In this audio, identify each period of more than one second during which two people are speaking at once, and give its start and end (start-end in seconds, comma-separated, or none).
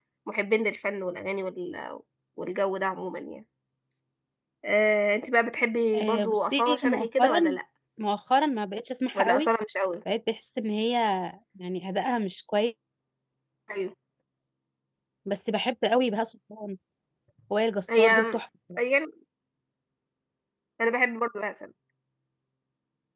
6.0-7.6